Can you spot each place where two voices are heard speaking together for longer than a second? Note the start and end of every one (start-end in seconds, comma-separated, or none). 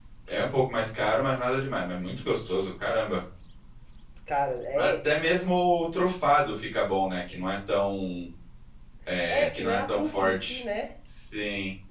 9.3-10.6